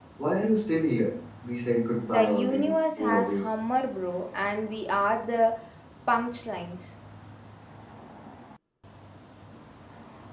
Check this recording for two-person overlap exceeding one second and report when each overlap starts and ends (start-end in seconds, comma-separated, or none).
2.1-3.4